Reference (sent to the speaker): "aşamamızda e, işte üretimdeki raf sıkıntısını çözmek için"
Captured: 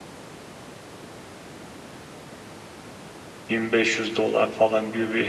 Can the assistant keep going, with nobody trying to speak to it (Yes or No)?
No